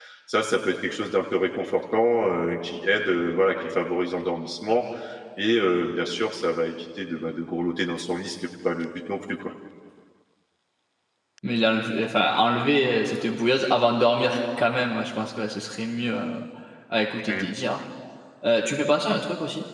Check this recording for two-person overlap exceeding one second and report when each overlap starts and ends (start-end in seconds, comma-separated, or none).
none